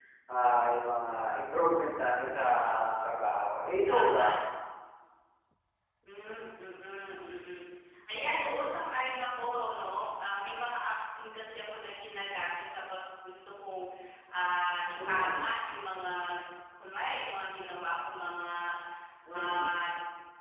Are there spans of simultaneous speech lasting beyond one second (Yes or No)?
No